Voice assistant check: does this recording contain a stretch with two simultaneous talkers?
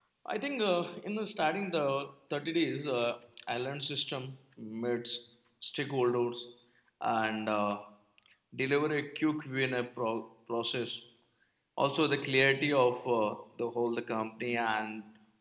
No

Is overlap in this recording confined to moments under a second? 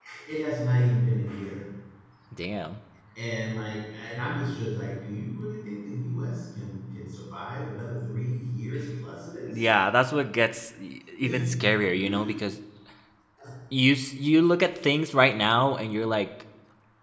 Yes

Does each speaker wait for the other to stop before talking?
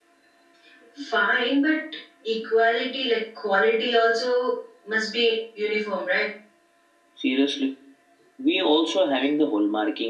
Yes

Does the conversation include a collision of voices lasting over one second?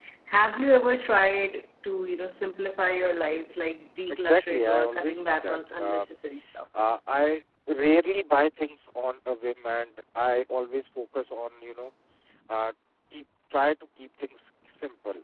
Yes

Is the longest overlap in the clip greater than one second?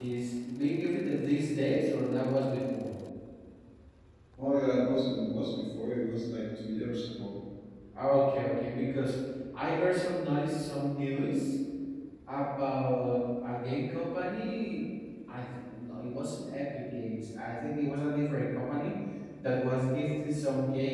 No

